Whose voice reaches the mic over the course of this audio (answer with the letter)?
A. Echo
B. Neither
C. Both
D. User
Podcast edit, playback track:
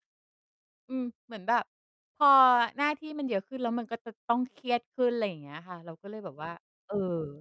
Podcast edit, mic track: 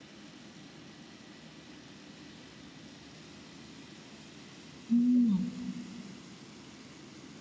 D